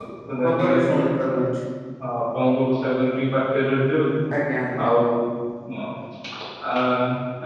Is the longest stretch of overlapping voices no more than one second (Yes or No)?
Yes